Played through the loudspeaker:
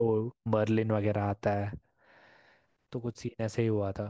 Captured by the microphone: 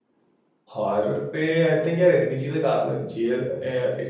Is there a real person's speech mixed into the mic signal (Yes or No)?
Yes